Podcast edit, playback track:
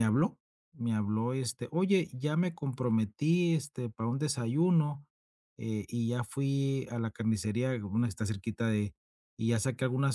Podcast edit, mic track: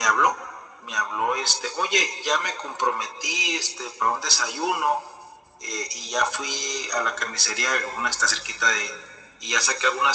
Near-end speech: none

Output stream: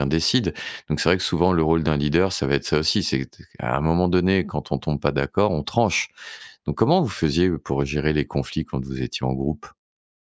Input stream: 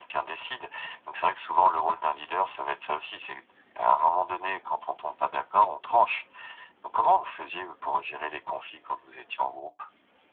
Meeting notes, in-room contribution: none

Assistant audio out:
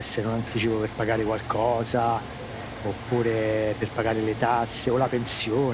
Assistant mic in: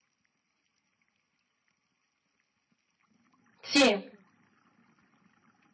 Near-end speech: present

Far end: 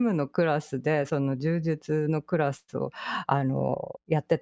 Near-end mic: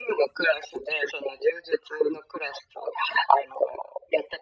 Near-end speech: none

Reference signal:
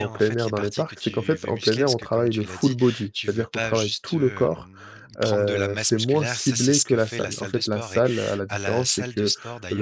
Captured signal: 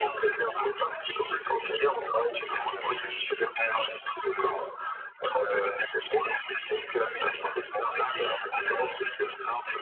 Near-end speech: present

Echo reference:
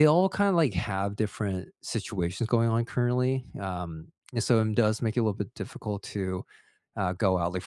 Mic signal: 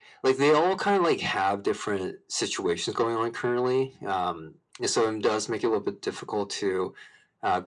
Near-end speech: none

